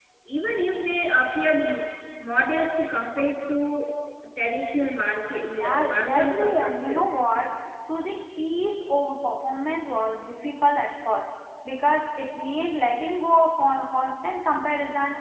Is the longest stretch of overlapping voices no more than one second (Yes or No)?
No